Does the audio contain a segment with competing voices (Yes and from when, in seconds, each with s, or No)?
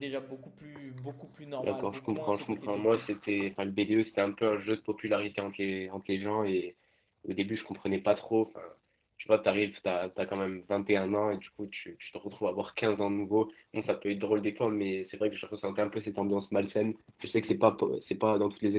Yes, from 1.6 s